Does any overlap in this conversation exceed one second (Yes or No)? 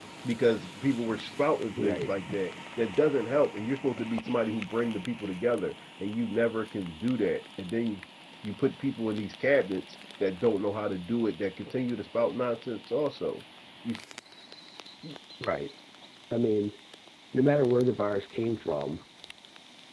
No